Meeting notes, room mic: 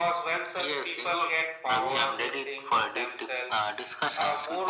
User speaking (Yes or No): No